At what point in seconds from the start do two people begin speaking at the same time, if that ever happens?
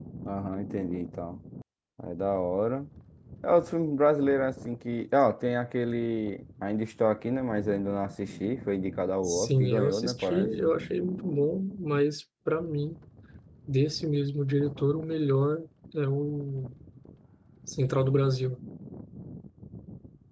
9.2 s

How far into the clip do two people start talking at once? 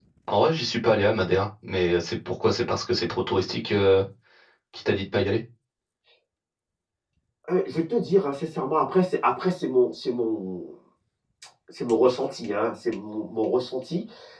none

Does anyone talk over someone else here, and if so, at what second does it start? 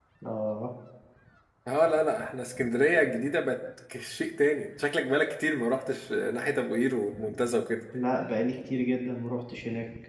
none

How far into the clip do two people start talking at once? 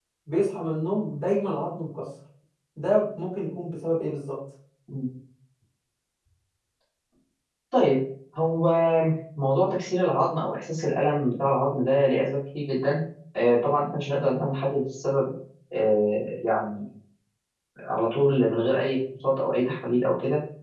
none

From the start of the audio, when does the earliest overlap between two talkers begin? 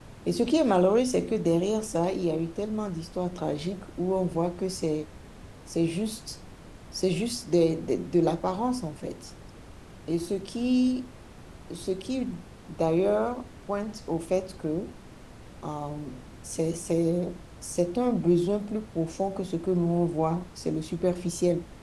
none

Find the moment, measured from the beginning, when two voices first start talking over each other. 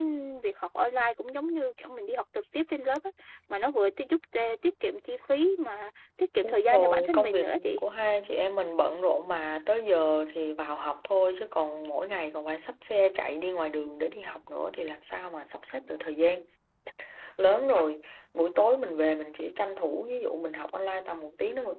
6.4 s

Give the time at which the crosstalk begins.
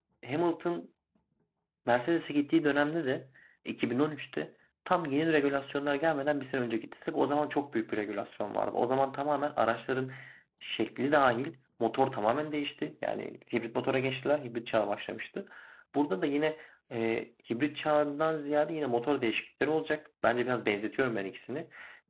none

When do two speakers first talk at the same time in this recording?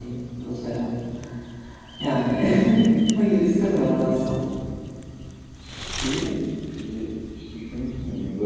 none

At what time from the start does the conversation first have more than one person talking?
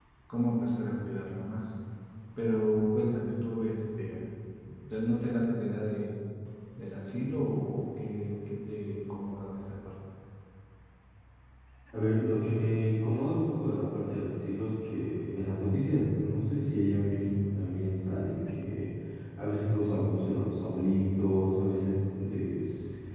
none

